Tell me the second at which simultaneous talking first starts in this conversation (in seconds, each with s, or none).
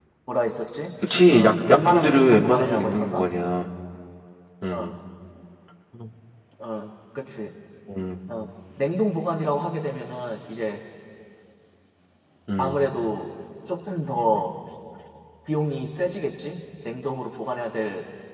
1.3 s